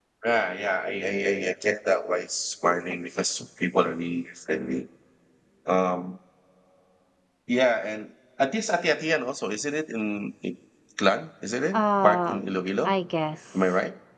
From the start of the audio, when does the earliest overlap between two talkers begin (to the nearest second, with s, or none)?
12 s